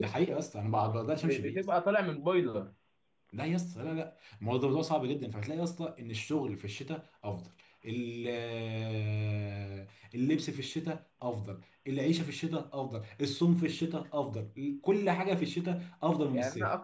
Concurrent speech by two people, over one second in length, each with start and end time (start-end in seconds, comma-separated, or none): none